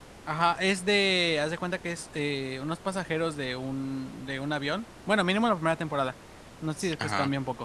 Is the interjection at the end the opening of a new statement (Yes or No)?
No